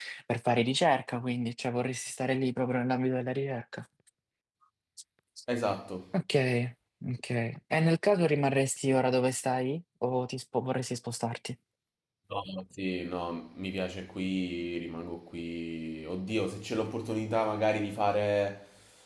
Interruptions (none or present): none